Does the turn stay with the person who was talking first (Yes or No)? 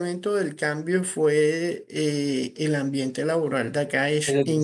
Yes